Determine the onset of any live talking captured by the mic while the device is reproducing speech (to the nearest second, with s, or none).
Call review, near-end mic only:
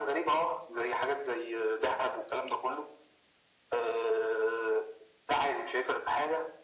none